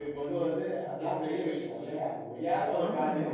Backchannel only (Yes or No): Yes